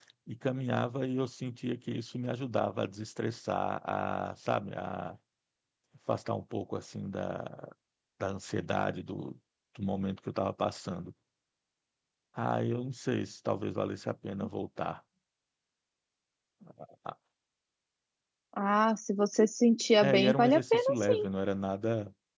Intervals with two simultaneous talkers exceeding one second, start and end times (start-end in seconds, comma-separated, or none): 20.0-21.3